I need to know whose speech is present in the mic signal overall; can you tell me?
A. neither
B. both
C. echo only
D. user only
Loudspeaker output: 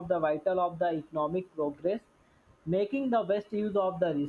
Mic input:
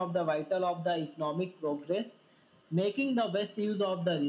C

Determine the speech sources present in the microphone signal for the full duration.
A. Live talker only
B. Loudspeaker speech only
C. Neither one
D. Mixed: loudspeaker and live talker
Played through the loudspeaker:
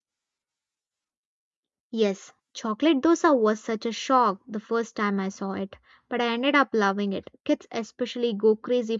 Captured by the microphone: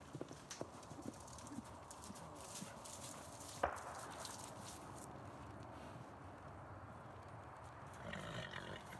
C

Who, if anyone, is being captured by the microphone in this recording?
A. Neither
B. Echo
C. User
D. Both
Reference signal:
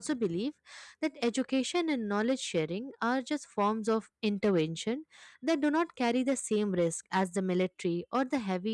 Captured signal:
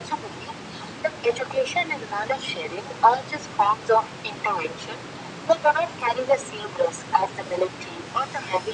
B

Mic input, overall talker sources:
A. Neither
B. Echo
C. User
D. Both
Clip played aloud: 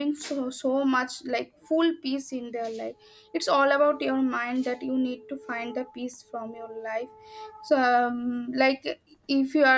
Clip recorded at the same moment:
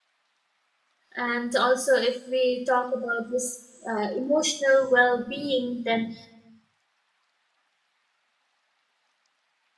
C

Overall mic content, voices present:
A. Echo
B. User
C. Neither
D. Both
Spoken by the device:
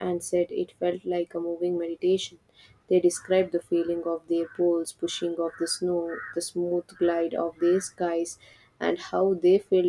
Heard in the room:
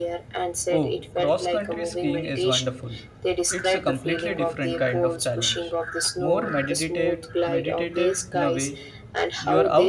D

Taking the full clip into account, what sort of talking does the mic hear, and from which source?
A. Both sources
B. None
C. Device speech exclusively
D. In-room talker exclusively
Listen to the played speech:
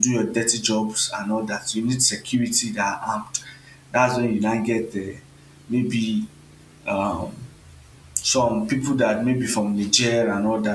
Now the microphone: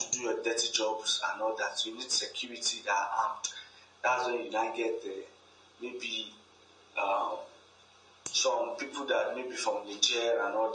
C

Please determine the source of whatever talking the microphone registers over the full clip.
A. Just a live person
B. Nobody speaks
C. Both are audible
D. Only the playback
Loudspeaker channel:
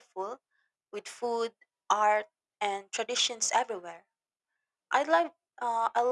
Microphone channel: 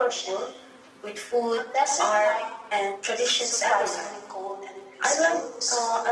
C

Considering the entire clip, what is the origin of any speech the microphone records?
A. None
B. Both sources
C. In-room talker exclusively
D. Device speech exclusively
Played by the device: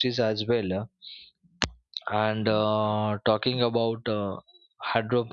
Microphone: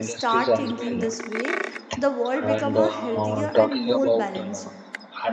B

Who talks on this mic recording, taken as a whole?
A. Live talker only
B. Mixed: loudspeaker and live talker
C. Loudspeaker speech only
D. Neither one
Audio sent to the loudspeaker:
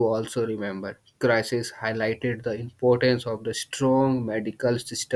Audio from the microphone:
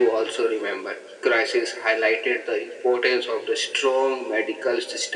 C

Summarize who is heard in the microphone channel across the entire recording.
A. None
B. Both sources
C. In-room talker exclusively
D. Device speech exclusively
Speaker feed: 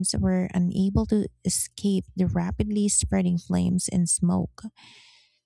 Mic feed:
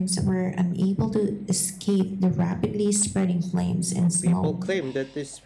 B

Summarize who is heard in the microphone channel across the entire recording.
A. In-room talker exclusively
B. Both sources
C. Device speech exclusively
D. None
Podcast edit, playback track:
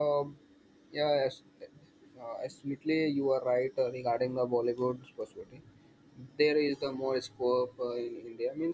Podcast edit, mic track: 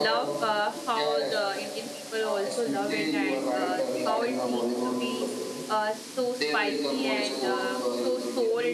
B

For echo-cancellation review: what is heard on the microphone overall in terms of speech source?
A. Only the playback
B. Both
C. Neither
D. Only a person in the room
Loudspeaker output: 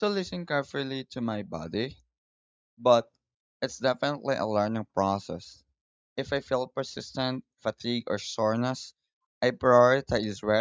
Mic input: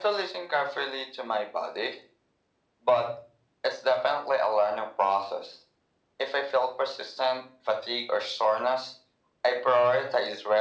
A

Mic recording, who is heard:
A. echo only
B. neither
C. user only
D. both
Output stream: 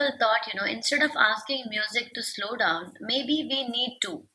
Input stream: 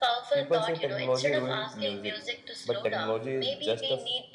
D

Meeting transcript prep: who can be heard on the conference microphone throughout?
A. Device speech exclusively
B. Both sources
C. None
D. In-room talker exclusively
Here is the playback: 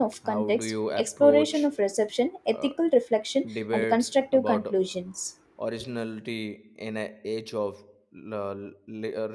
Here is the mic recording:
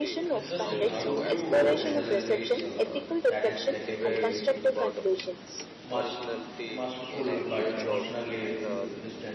B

